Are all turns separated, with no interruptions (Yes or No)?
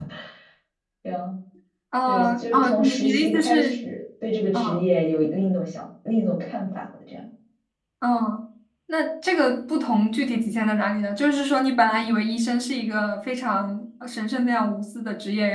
No